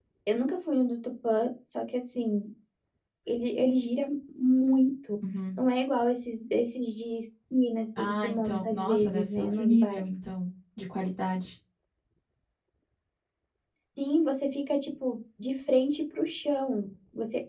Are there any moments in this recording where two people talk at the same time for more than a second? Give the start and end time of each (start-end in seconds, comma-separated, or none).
8.0-10.0